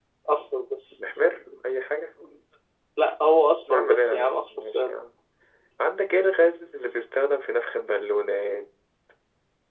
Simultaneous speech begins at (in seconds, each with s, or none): 3.7 s